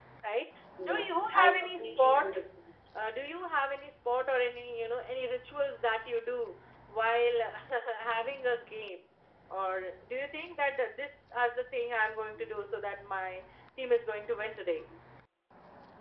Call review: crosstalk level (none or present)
present